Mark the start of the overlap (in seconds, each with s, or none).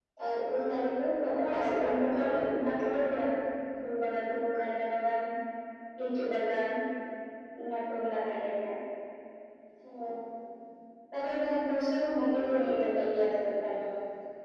1.3 s